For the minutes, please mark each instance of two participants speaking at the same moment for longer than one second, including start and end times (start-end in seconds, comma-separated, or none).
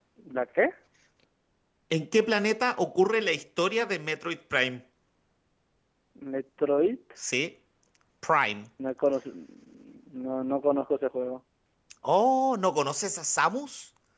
none